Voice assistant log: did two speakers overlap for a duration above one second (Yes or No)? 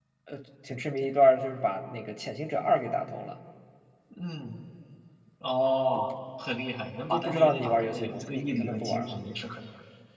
Yes